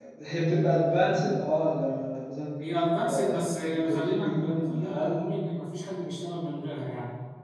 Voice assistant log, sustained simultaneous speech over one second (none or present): present